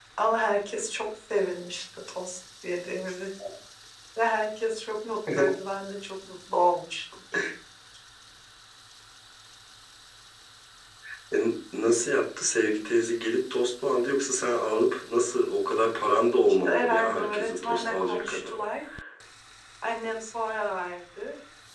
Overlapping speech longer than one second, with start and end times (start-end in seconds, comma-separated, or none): 16.5-18.5